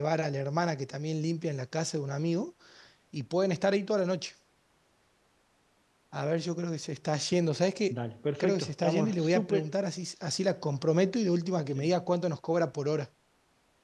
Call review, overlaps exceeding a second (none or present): present